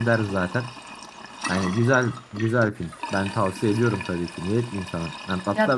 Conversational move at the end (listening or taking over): listening